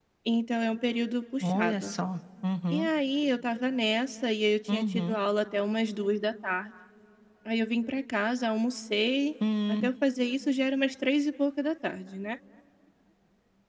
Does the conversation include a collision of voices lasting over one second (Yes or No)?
No